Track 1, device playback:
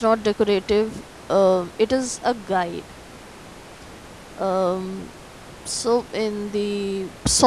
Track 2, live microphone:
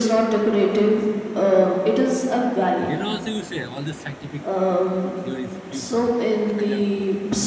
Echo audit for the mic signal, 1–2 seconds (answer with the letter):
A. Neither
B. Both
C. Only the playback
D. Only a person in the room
C